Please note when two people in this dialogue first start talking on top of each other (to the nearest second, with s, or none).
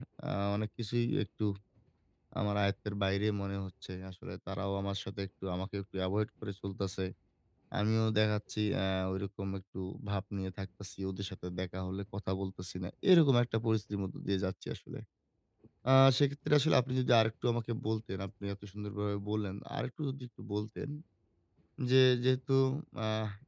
none